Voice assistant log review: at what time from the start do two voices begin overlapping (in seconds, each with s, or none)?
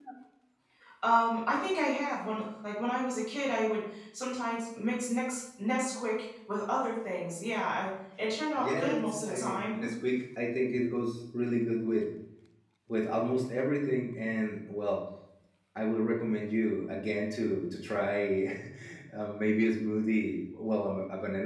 8.6 s